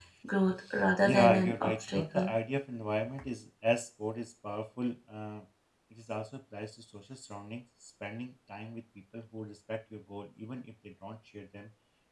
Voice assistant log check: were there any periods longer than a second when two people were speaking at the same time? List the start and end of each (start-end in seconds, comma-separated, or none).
1.0-2.4